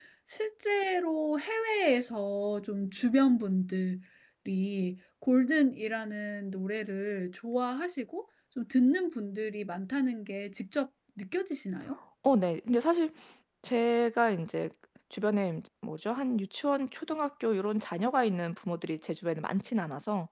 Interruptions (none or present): none